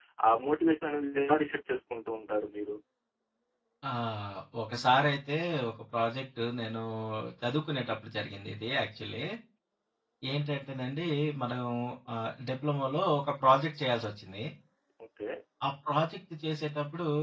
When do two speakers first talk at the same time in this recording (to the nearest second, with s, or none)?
none